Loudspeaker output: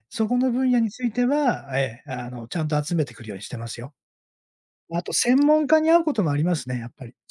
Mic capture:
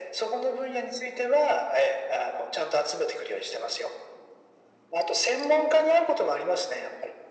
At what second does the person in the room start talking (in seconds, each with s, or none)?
none